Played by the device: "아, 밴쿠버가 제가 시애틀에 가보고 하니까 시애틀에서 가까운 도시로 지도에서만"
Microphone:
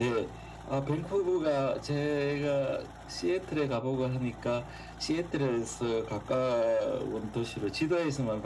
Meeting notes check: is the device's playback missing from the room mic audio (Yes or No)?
No